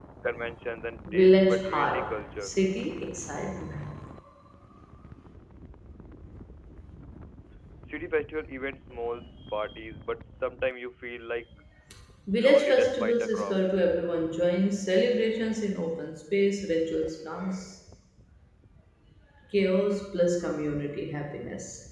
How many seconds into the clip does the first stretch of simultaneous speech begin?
1 s

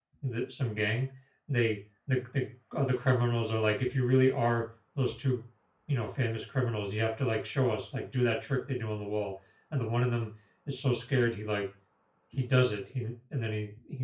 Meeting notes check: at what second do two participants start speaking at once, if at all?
none

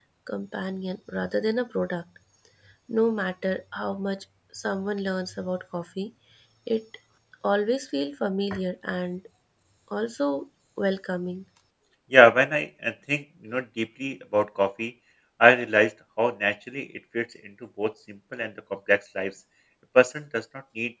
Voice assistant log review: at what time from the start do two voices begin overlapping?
none

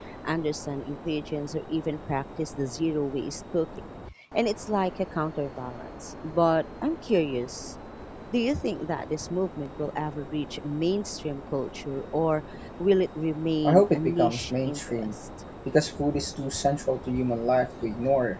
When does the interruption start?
14 s

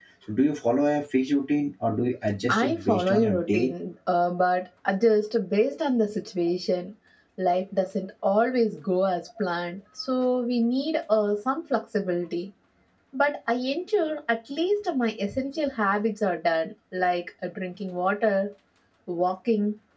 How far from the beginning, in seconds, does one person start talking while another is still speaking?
2 s

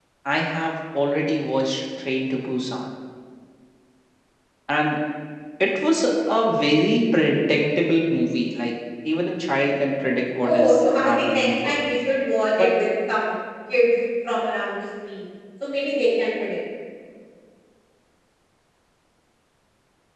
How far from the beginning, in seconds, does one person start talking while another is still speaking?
10 s

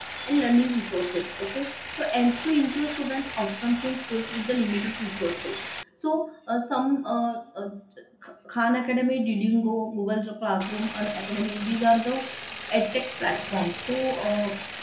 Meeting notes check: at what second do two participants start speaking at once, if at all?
none

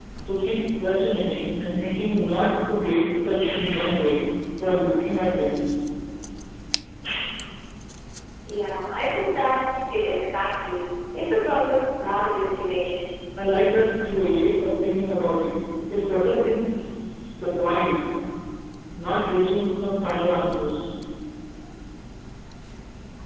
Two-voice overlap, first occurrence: none

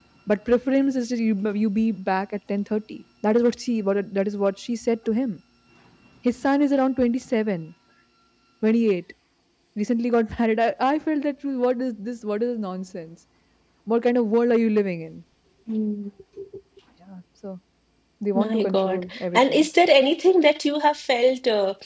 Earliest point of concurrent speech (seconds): 18 s

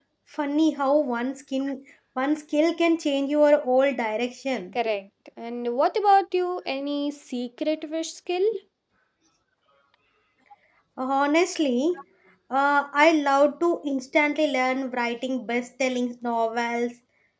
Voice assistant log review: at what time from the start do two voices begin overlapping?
none

